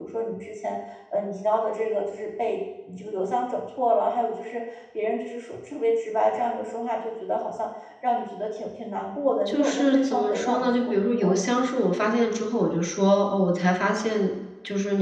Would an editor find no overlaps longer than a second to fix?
No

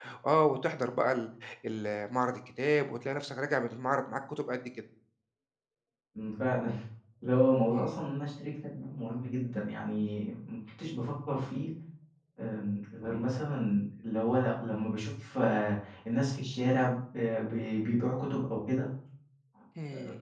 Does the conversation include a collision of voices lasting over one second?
No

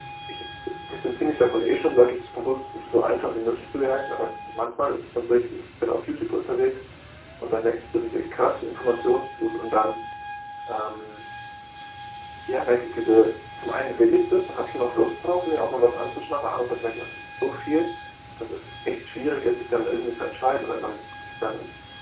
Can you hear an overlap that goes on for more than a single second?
No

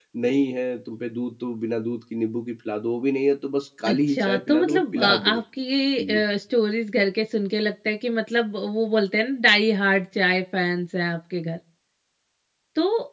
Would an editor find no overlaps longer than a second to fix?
No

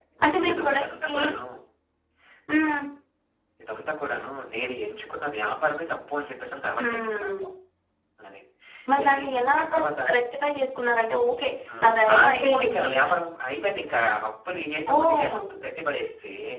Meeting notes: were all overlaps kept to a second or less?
No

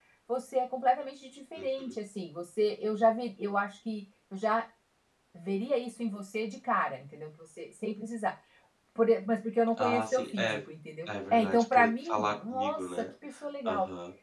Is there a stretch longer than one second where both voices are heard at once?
Yes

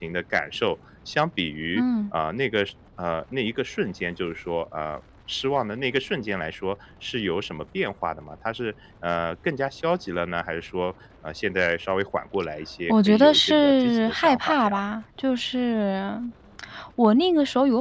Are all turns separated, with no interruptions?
No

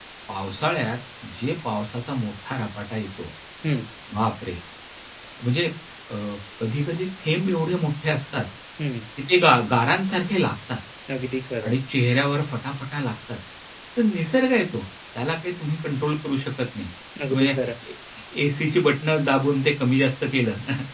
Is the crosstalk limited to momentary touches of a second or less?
Yes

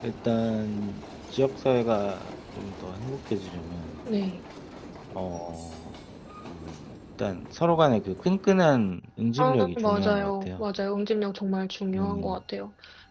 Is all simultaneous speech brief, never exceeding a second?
No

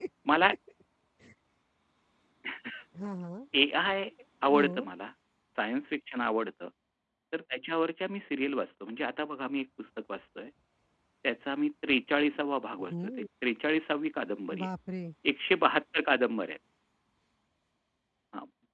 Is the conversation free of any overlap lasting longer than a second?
Yes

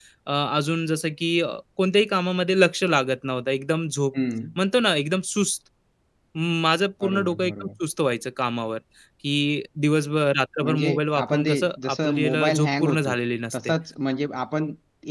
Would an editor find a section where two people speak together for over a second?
Yes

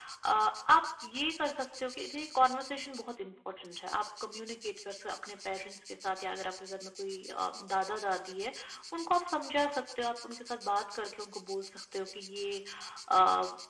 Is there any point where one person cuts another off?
No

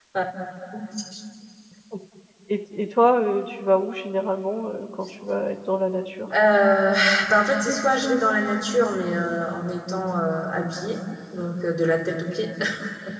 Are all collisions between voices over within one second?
Yes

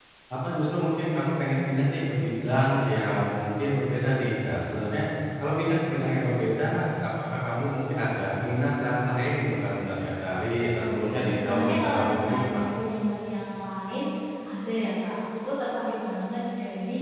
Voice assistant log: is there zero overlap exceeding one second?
No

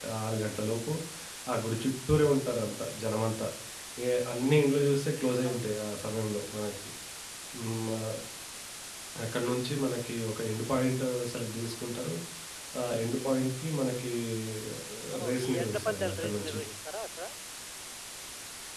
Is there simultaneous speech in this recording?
Yes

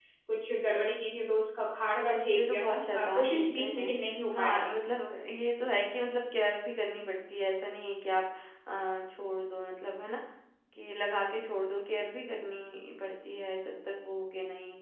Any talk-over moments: Yes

